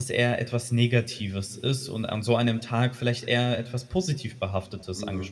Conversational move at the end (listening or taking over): taking over